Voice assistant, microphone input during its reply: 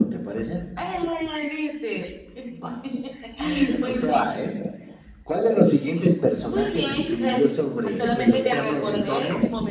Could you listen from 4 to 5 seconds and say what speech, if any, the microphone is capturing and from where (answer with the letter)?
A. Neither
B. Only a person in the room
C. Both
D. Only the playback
D